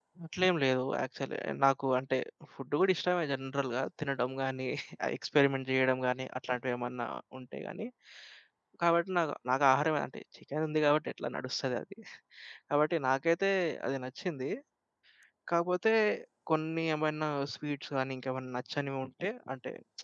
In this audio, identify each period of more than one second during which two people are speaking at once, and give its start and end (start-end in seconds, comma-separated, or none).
none